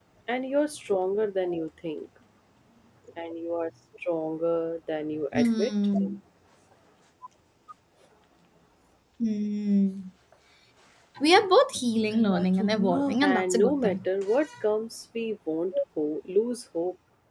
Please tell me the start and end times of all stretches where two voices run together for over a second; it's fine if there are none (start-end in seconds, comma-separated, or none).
12.0-14.0